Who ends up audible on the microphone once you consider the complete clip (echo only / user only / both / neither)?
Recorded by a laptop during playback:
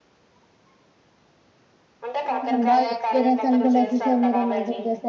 both